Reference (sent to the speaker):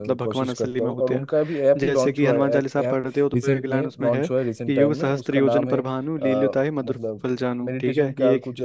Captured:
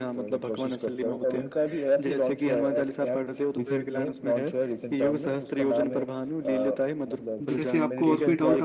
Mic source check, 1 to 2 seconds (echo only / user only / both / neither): echo only